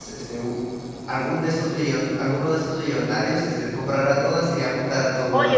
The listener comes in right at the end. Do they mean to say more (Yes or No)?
Yes